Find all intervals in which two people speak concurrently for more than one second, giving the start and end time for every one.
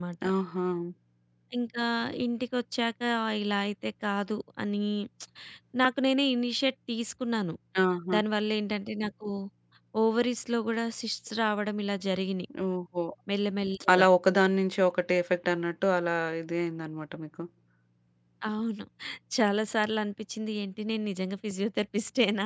none

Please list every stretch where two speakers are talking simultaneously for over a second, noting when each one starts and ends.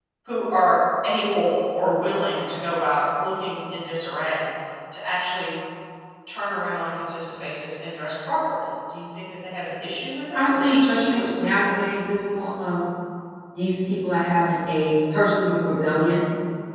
10.3-11.6

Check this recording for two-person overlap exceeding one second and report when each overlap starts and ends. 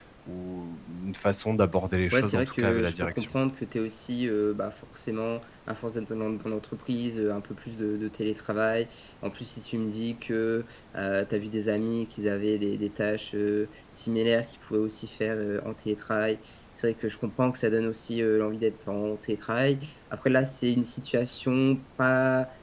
2.1-3.4

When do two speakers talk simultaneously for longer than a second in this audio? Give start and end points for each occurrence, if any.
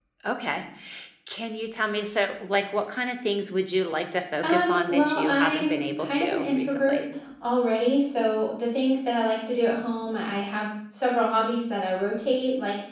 4.4-7.0

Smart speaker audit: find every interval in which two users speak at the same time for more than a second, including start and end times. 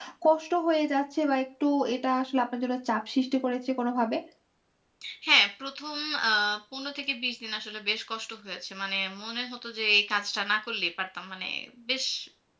none

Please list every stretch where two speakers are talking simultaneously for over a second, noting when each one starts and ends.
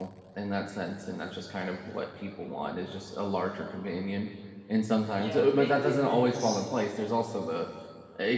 5.2-6.7

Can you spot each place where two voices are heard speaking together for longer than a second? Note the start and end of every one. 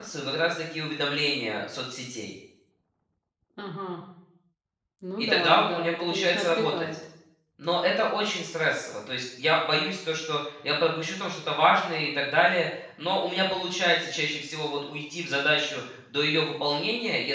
5.2-6.9

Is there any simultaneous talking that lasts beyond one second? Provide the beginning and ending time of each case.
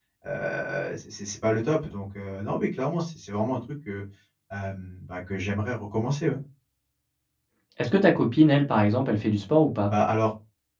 none

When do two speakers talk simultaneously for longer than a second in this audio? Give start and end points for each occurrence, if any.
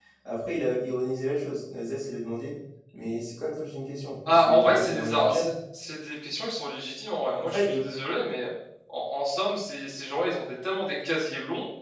4.3-5.5

